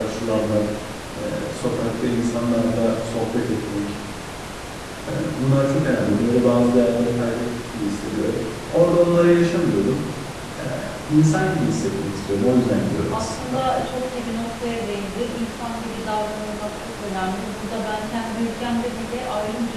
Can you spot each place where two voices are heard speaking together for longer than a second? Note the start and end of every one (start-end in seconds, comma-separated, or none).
none